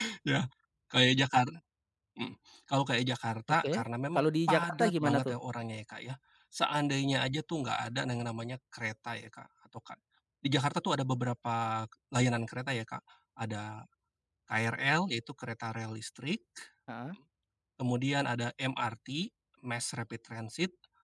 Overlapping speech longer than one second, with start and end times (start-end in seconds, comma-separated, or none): 4.2-5.4